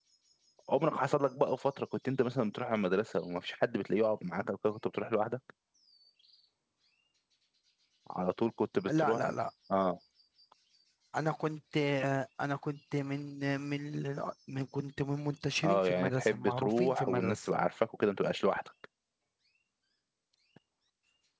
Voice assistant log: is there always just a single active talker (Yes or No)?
No